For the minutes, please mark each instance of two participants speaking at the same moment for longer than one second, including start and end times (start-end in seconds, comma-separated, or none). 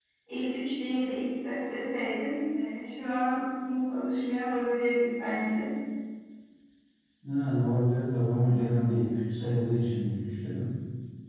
none